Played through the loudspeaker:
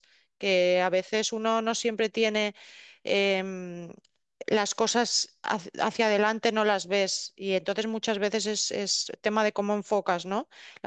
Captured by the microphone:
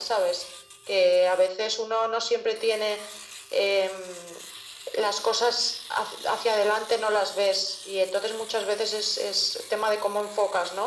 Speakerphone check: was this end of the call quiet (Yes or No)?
Yes